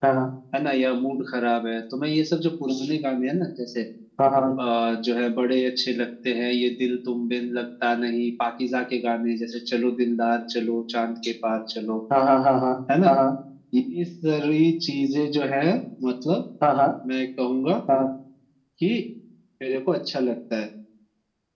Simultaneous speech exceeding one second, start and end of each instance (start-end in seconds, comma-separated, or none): none